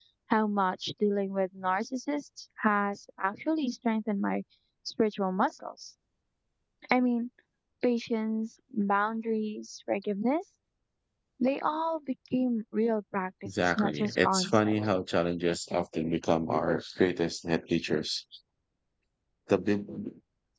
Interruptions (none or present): present